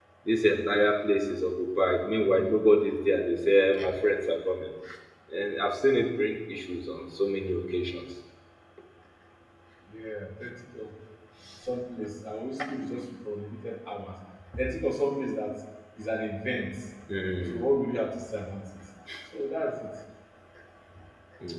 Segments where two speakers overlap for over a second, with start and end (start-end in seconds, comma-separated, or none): none